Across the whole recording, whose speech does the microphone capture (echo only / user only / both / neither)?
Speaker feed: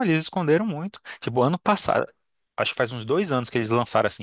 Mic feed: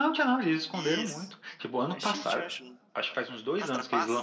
both